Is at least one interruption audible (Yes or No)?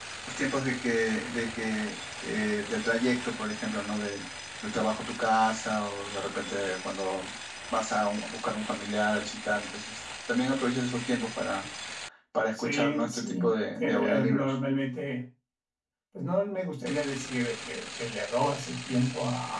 Yes